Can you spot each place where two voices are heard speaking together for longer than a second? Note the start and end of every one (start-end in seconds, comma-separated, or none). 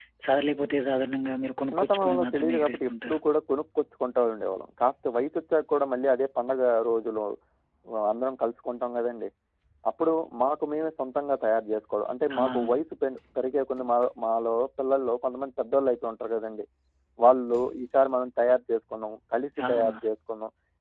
1.7-3.2